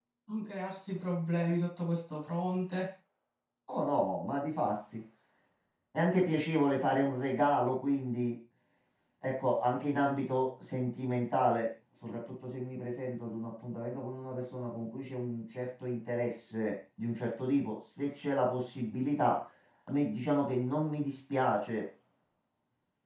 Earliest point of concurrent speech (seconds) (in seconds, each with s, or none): none